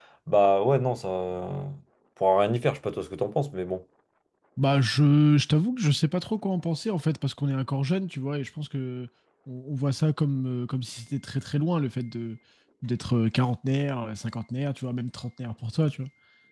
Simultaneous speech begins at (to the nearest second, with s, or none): none